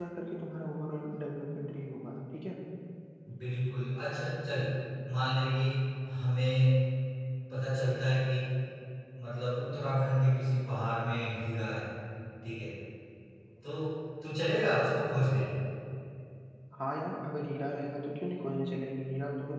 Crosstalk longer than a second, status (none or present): none